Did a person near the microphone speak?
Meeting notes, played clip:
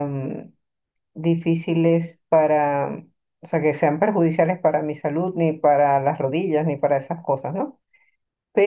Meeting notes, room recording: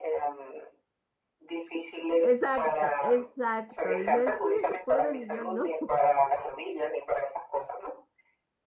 Yes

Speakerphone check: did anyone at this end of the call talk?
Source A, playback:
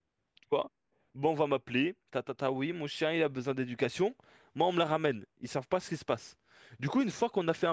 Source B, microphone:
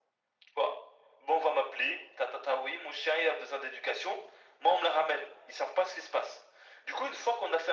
No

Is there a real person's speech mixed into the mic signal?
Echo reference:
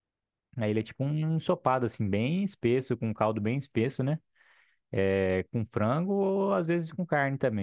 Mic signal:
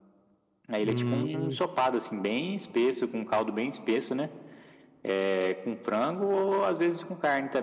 Yes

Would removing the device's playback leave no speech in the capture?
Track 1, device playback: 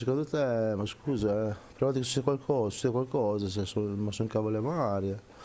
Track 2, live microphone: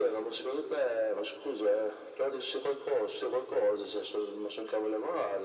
Yes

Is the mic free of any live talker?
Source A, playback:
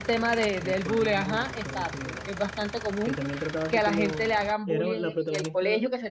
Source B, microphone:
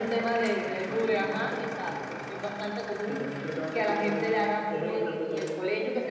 No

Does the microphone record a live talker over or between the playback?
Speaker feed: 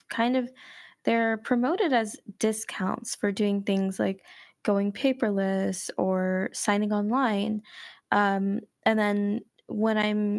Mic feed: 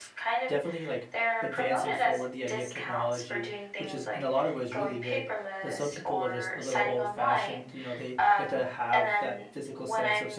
Yes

